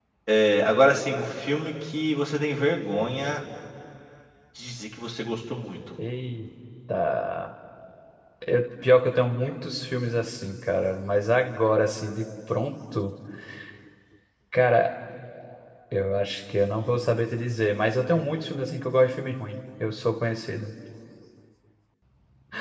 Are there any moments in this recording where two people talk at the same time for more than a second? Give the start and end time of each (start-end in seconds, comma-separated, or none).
none